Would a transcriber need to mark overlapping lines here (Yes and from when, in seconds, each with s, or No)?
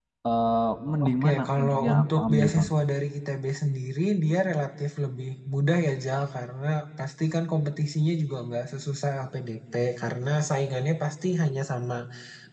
Yes, from 1.0 s